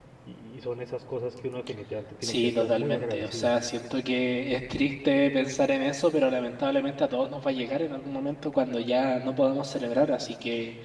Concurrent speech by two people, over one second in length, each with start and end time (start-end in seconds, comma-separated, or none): 2.2-3.5